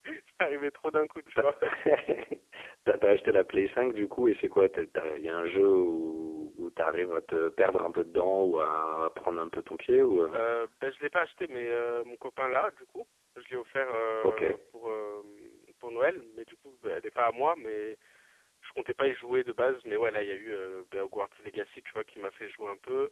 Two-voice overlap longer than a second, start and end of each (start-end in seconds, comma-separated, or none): none